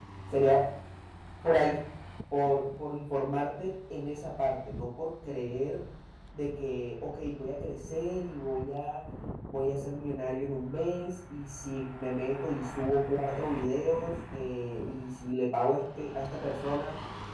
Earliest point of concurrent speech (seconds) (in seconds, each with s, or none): none